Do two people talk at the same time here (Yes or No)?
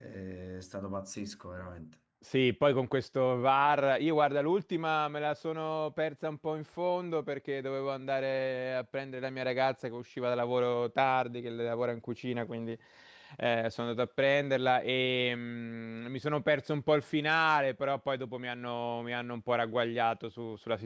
No